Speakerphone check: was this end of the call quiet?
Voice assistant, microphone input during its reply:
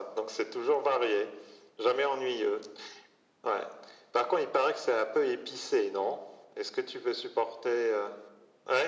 Yes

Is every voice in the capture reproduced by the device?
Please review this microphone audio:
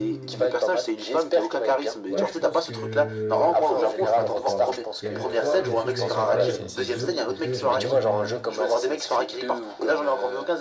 No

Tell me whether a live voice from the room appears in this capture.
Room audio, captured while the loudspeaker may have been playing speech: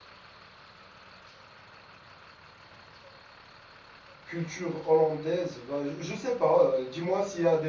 Yes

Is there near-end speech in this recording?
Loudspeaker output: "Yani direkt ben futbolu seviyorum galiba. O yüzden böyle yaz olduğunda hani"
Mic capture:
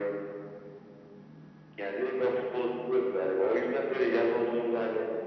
No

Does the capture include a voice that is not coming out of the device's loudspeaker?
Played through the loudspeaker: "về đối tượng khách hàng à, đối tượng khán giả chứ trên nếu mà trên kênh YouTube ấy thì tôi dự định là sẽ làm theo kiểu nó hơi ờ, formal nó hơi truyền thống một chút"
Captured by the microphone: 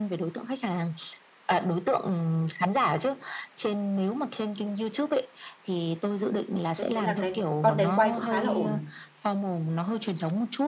Yes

